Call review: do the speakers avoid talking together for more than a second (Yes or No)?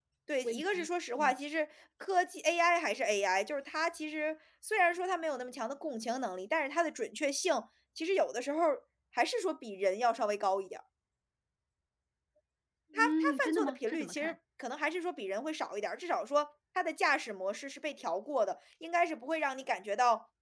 No